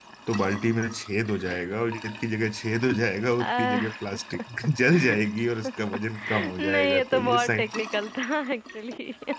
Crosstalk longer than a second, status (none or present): present